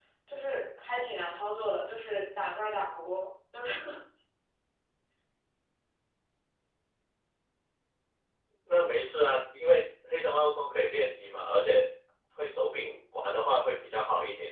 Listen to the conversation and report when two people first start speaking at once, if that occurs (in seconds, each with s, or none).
none